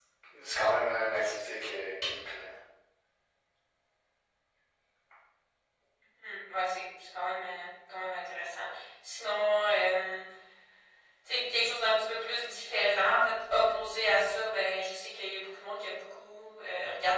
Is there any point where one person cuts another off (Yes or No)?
No